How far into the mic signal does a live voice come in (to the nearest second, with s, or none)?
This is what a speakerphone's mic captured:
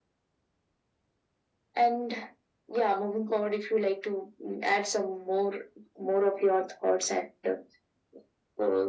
none